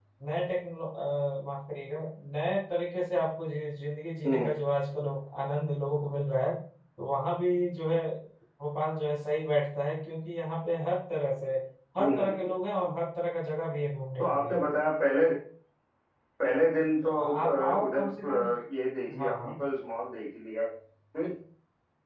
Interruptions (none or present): present